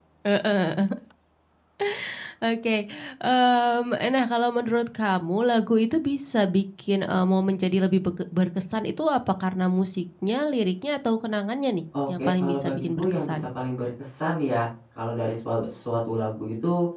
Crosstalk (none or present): present